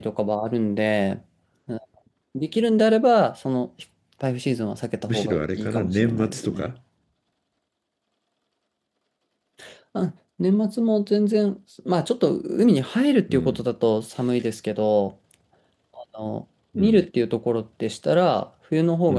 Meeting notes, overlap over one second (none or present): present